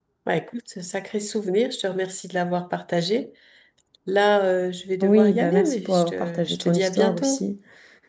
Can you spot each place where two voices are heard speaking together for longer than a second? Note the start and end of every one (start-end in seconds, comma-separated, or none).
5.0-7.4